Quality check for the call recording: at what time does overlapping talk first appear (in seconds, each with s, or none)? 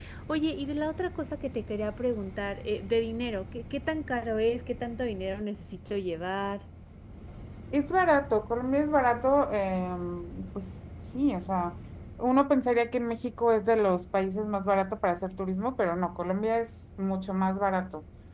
none